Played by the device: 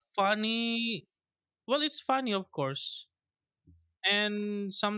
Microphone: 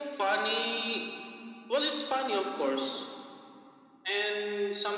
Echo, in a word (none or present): present